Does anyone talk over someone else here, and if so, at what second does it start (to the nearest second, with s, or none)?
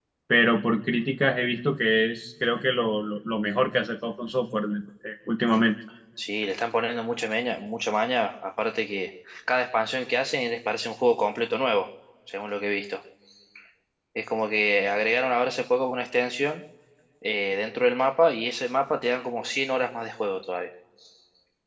none